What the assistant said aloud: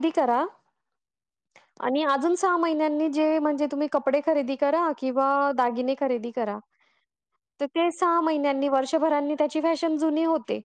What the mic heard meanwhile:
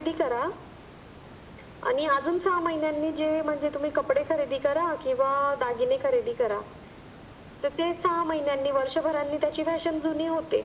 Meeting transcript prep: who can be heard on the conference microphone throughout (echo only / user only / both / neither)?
echo only